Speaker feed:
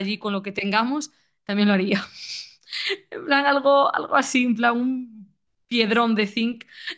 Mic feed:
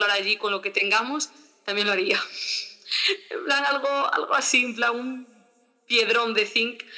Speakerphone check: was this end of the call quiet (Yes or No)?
Yes